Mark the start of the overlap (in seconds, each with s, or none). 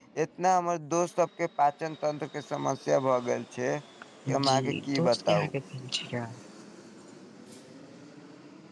4.3 s